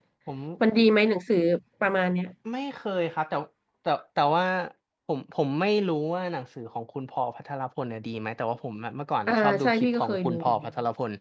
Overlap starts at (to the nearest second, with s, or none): 9 s